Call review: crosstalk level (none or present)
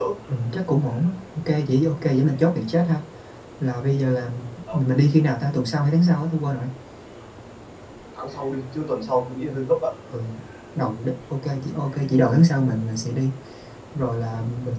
none